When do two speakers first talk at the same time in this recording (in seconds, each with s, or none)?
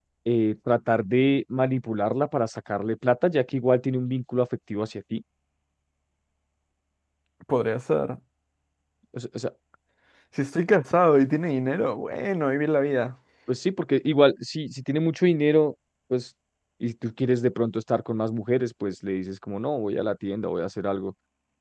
none